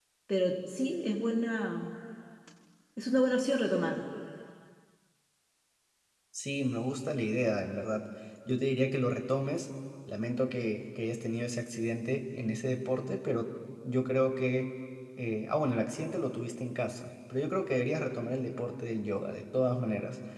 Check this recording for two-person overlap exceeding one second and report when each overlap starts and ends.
none

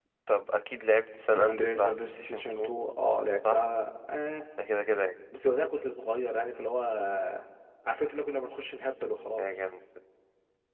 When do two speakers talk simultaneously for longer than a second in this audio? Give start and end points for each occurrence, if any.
1.3-2.7

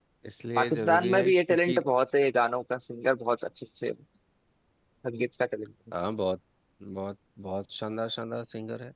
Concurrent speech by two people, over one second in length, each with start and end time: 0.6-1.8

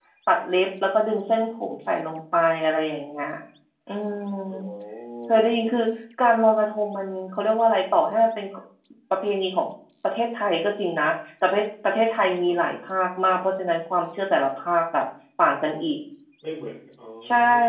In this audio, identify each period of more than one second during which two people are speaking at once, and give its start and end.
none

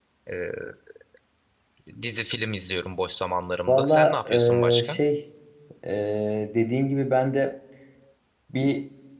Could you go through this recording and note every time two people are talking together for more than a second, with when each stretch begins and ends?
3.7-5.0

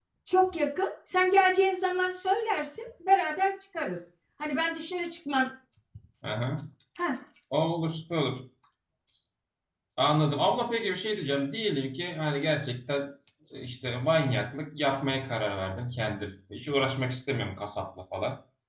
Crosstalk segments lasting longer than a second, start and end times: none

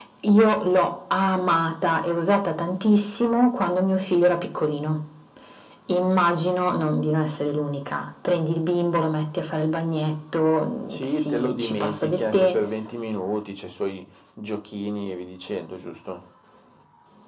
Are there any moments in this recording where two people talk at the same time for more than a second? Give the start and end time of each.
10.9-12.6

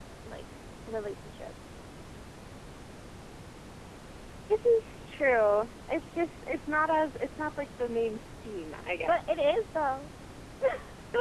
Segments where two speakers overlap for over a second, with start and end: none

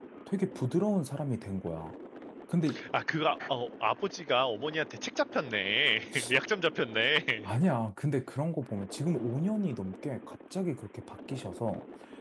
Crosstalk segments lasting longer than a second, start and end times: none

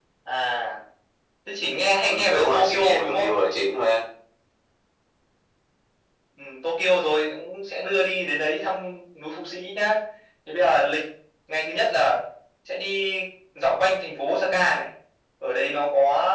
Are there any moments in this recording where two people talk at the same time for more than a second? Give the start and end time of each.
2.0-3.3

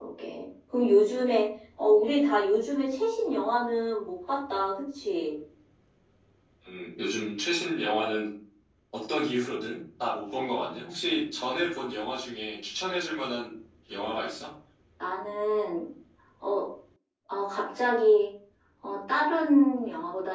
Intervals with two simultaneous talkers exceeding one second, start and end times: none

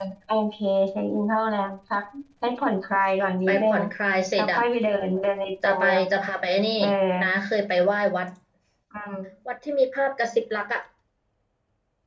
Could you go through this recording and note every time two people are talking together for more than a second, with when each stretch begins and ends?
none

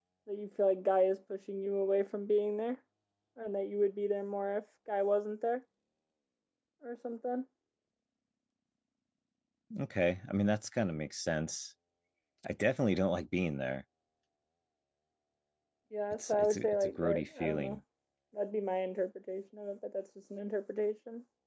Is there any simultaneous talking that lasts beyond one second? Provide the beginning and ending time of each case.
16.1-17.8

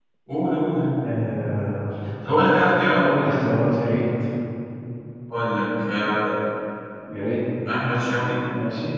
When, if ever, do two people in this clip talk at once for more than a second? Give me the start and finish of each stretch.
none

